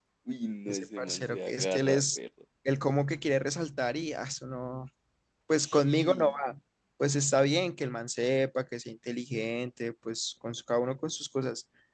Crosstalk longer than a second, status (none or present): present